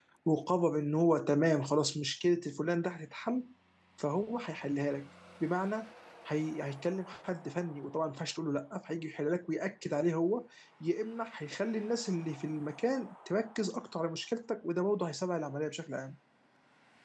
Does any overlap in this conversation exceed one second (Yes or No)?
No